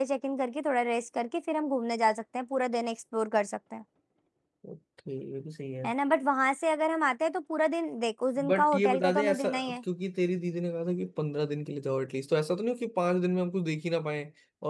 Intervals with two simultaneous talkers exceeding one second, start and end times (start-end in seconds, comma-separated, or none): 8.5-9.8